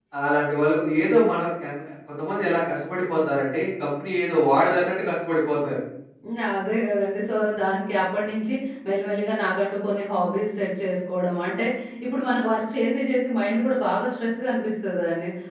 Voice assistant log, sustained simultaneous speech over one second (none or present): none